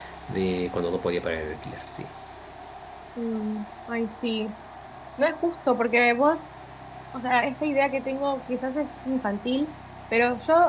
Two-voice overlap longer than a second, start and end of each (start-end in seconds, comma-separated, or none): none